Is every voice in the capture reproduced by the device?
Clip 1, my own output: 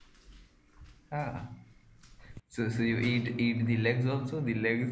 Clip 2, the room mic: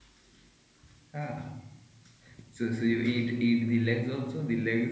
Yes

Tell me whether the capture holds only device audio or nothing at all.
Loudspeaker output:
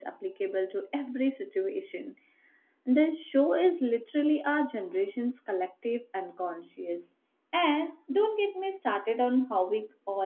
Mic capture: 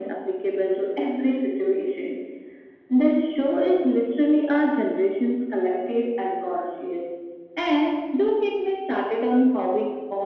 Yes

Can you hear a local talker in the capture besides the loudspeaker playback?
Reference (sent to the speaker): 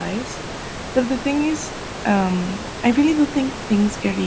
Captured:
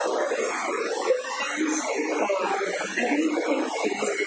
No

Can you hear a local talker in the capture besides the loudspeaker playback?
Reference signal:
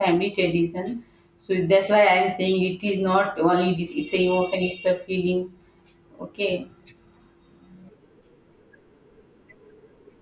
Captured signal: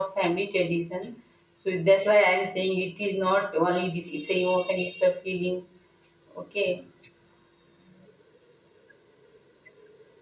No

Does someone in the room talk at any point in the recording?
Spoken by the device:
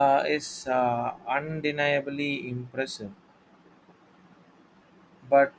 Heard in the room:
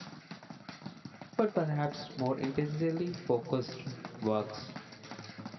Yes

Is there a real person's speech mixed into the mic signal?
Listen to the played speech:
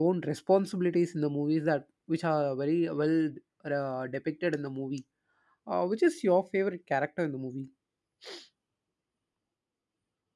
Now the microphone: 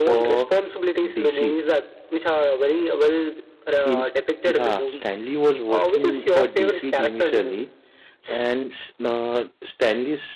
Yes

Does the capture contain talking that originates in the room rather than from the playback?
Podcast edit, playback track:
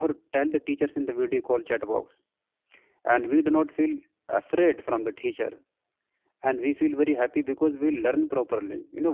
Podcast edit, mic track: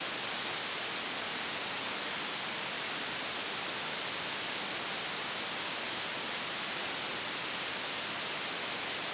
No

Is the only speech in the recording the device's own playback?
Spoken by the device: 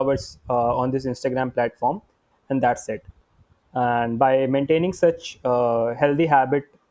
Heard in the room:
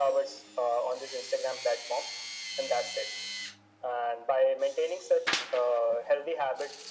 Yes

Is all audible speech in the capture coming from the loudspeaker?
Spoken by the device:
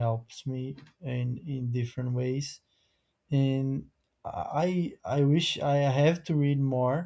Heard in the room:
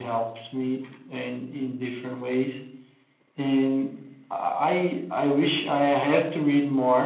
Yes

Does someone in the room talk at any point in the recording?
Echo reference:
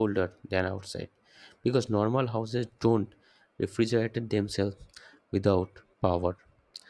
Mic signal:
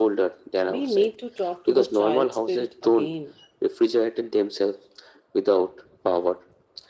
Yes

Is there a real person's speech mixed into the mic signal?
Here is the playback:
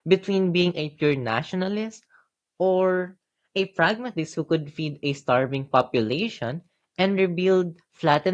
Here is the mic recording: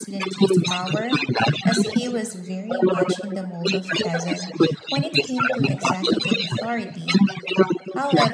Yes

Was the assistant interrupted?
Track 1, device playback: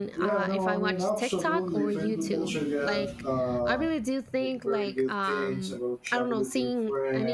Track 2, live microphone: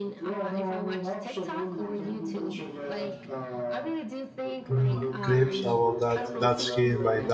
Yes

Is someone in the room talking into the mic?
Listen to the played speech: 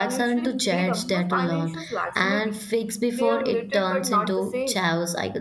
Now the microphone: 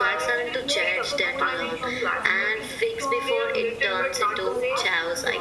Yes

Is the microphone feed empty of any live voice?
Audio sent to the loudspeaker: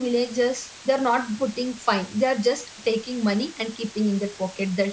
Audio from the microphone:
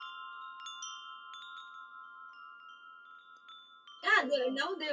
No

